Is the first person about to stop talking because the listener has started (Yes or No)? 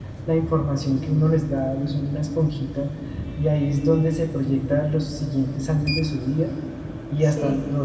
No